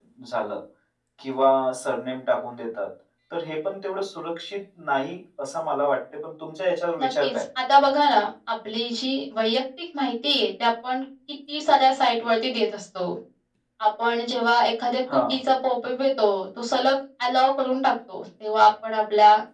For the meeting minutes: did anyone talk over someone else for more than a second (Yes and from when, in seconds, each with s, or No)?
No